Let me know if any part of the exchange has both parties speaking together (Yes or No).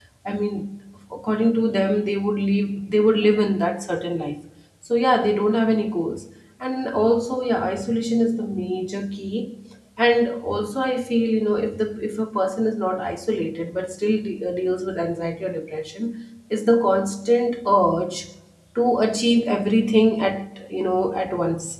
No